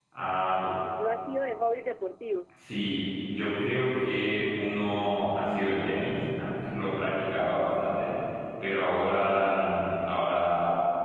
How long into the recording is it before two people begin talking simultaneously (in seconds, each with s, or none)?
none